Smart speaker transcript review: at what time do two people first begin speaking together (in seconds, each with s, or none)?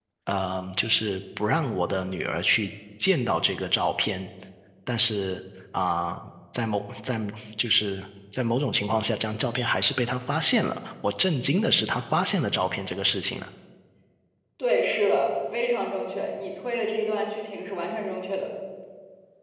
none